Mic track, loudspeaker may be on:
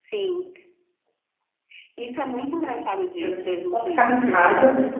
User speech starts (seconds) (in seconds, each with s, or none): 3.2 s